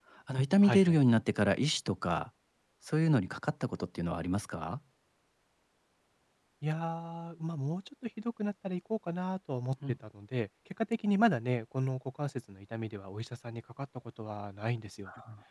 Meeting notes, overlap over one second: none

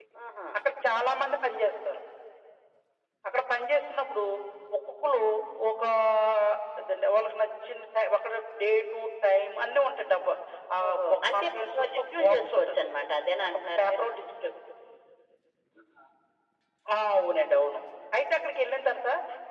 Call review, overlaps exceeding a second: present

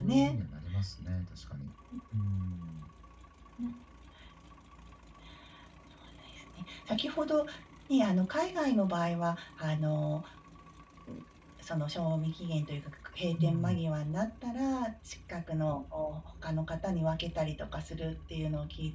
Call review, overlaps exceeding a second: none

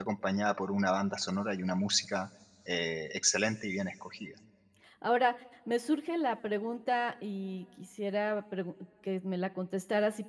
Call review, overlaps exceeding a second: none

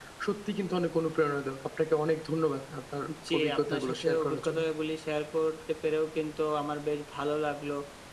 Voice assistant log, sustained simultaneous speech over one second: present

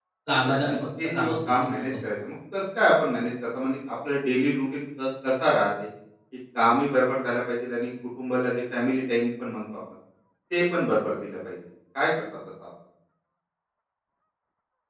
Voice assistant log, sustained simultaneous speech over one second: present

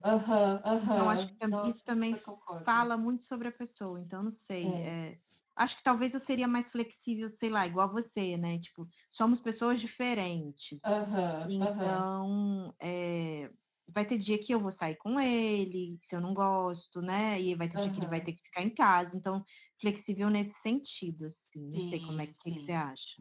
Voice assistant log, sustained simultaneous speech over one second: present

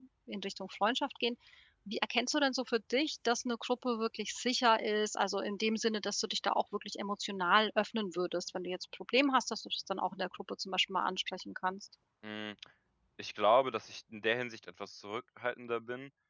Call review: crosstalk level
none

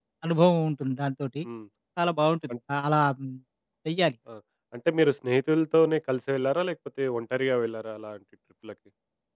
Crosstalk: none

